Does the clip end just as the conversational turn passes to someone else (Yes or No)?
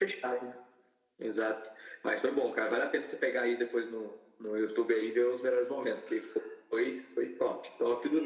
Yes